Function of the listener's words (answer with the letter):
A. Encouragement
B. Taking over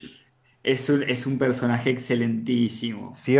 B